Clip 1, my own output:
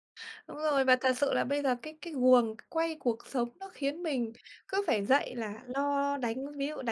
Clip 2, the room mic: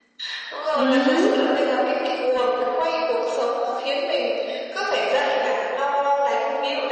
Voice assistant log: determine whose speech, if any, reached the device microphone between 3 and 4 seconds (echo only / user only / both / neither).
echo only